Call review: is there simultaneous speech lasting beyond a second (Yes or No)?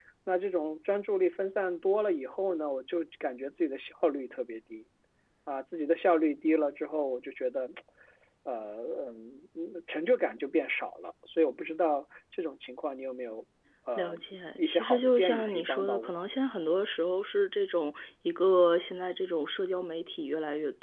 Yes